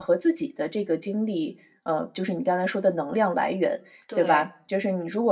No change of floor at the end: Yes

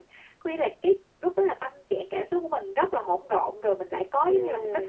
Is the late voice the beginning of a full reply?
Yes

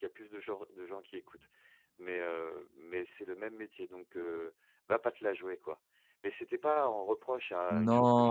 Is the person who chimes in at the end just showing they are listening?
No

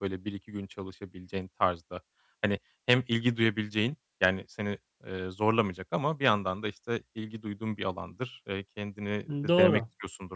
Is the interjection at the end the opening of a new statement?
No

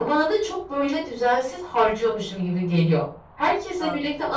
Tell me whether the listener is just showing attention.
Yes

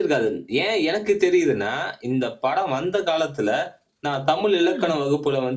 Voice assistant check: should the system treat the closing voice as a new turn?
No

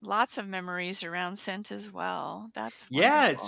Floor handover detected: Yes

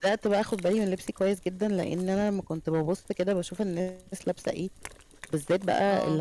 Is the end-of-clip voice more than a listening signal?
No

